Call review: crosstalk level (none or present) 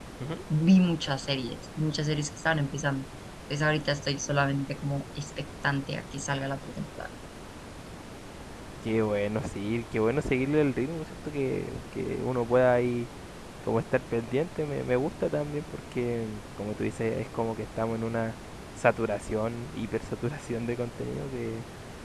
none